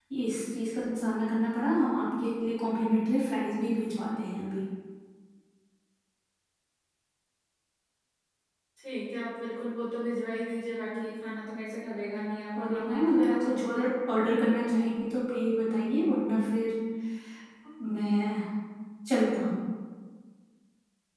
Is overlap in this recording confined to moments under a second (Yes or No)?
No